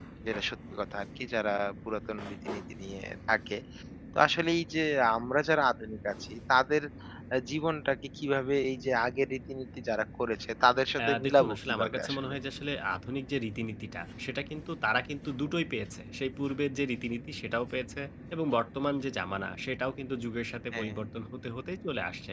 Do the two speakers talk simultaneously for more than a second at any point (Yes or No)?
Yes